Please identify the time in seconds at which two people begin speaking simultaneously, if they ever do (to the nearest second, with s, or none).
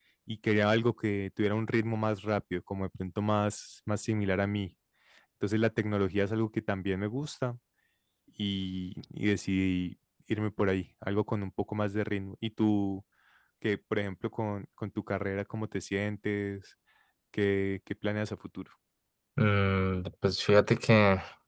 none